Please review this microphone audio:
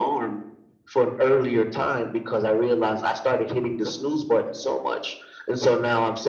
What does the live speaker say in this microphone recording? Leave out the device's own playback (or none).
none